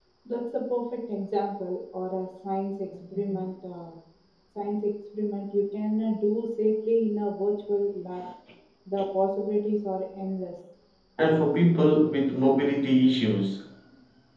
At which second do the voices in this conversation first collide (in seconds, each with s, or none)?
none